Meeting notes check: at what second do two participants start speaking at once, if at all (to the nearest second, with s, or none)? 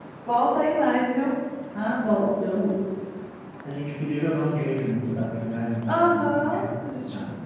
6 s